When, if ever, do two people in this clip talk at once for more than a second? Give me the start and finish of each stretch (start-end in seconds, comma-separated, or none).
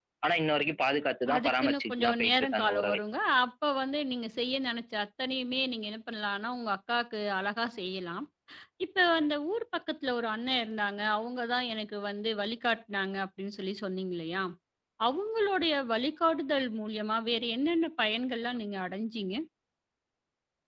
1.4-3.0